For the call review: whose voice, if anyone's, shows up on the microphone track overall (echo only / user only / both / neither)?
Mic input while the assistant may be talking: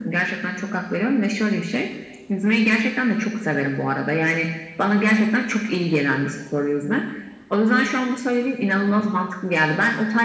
echo only